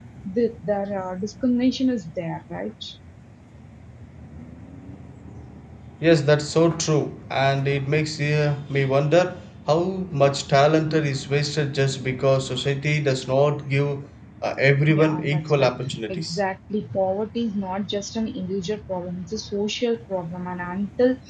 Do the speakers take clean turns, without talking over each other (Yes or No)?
No